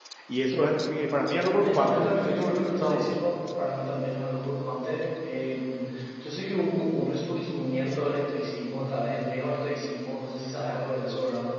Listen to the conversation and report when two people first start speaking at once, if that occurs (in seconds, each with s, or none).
1.5 s